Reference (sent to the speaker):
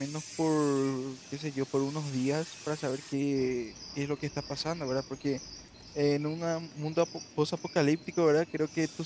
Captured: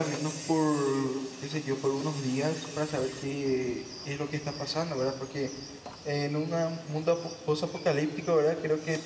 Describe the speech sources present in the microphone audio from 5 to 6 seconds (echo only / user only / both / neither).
echo only